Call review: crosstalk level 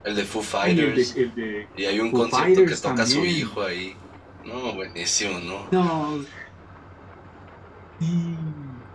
present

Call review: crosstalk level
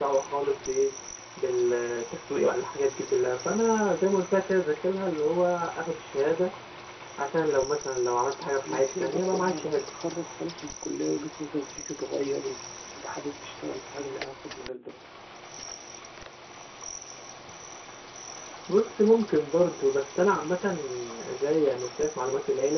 present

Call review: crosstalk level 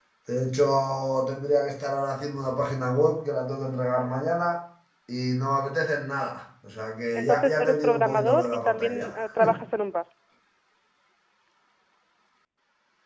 present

